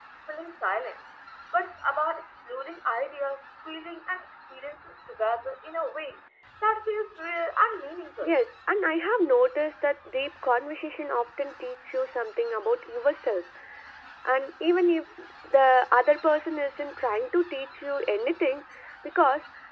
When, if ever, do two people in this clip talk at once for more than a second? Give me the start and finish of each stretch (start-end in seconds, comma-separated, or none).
none